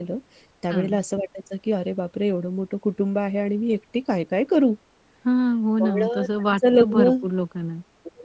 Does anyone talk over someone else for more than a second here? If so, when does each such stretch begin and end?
5.8-7.1

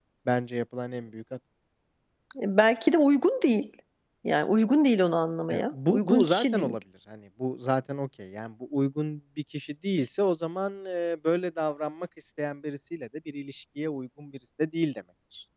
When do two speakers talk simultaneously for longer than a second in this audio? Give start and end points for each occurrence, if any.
5.5-6.8

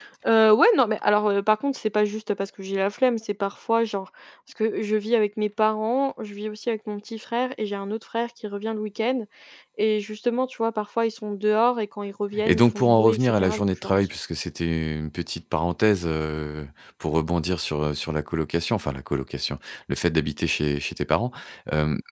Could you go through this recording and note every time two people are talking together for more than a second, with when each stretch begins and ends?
12.5-14.1

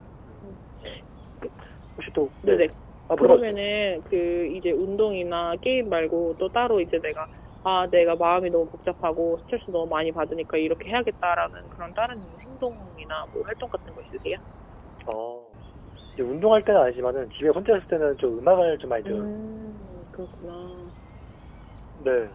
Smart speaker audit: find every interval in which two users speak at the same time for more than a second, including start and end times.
none

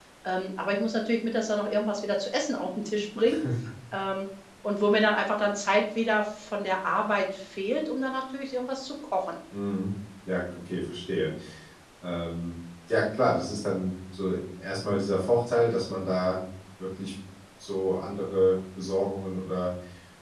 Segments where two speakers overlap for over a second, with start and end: none

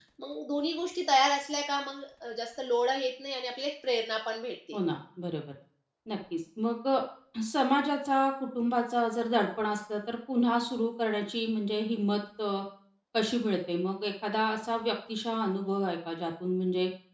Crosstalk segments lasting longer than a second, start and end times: none

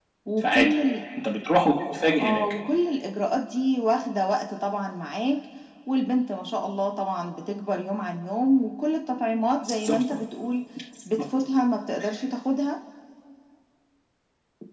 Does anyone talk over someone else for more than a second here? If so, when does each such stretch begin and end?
none

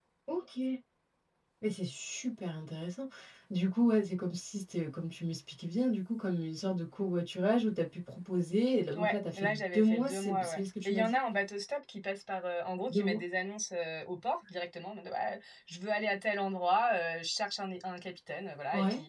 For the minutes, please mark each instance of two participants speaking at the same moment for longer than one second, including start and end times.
8.9-11.2

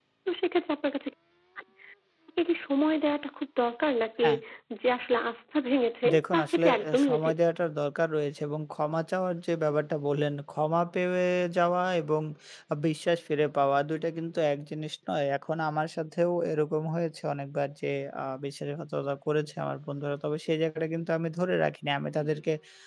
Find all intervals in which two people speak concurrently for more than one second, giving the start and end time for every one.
6.1-7.3

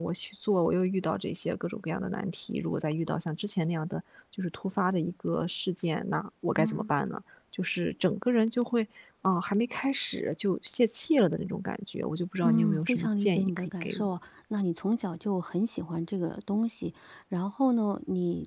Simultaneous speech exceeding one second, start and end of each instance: 12.4-14.1

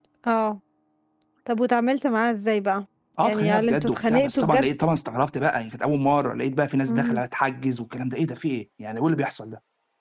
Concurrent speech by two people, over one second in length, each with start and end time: 3.2-4.7

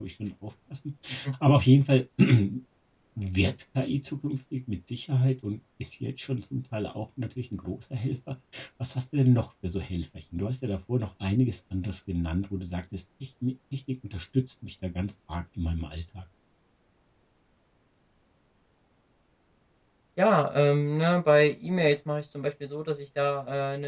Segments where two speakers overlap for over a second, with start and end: none

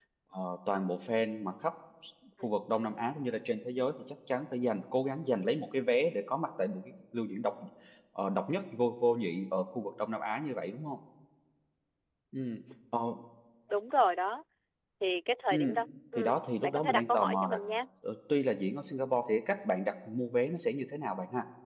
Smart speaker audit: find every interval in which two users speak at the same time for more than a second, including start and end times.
16.1-17.6

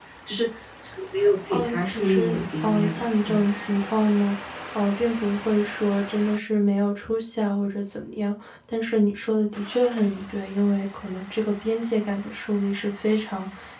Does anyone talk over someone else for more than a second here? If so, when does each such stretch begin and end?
1.5-3.4

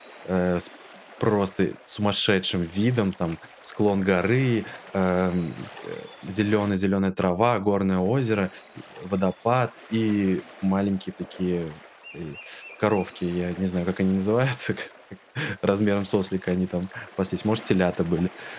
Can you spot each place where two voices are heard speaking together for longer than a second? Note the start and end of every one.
none

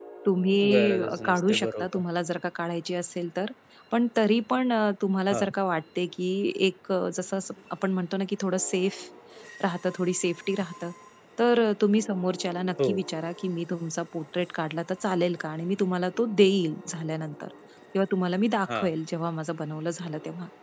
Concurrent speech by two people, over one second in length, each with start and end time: 0.7-2.0

